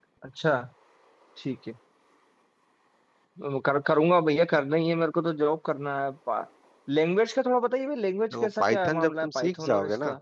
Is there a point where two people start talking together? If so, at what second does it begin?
8 s

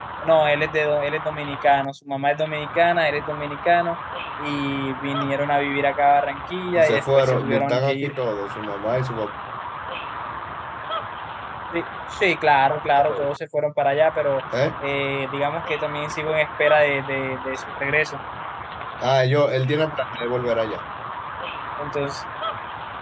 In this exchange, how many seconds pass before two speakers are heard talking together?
7 s

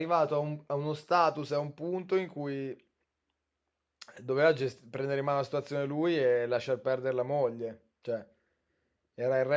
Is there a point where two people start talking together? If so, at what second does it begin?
none

